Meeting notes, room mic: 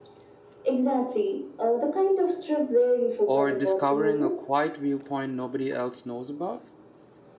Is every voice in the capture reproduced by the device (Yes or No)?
No